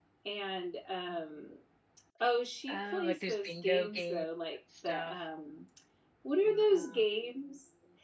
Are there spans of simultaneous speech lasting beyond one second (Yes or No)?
Yes